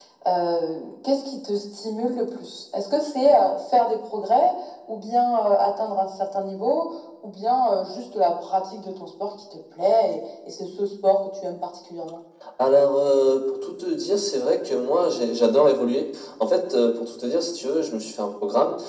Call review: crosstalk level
none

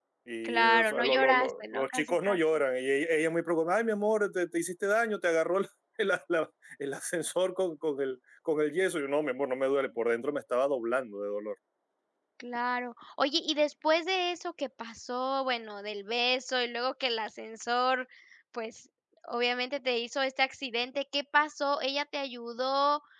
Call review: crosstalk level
present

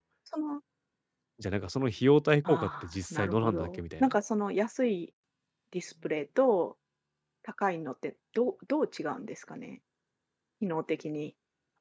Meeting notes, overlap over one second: present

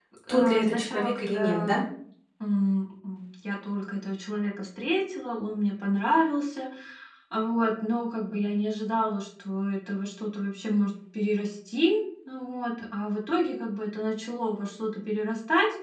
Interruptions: present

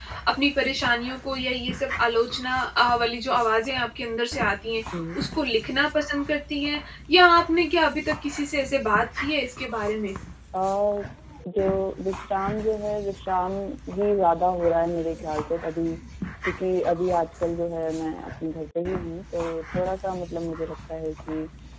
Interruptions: none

